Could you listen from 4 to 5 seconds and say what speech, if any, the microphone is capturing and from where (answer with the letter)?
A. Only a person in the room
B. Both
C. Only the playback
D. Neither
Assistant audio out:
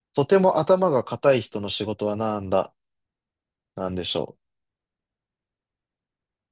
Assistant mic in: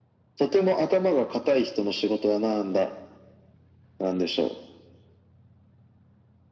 C